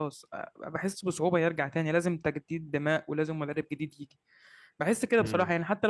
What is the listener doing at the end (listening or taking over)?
listening